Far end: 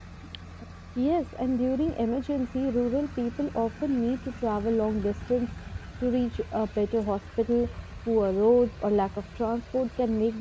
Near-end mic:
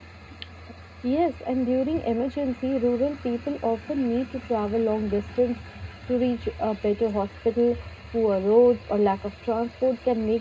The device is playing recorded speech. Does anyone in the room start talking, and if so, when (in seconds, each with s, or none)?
none